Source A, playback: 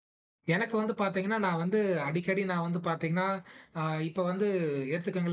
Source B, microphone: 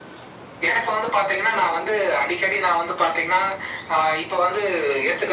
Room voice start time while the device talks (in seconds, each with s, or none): none